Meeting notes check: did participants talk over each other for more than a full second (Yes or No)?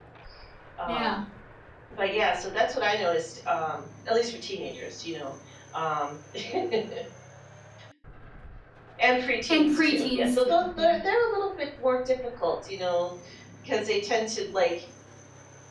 Yes